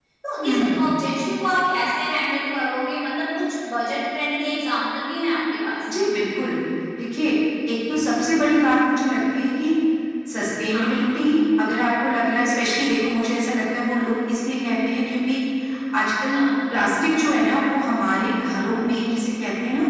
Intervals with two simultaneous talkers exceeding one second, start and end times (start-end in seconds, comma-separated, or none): none